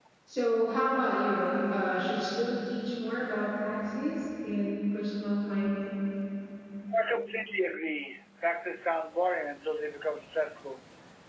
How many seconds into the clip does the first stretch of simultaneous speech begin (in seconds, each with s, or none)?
none